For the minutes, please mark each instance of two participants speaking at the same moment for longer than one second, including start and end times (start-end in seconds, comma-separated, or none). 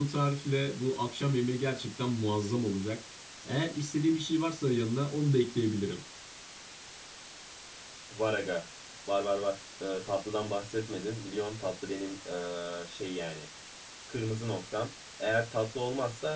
none